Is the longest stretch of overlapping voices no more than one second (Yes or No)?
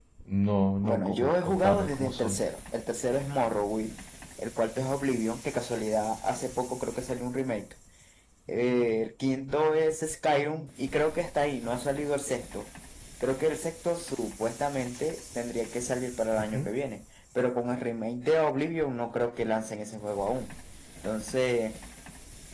No